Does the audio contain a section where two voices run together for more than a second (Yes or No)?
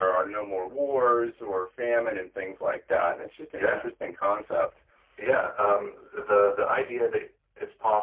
No